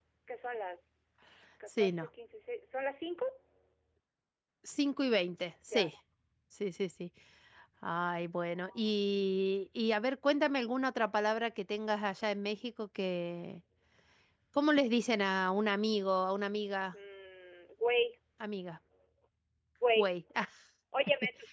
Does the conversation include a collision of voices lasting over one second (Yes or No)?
No